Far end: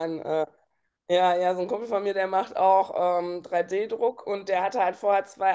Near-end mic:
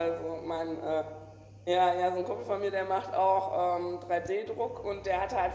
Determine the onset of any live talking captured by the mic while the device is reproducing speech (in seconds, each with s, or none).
none